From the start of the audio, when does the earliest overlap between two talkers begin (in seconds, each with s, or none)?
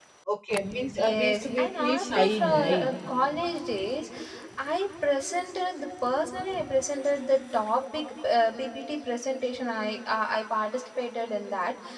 1.0 s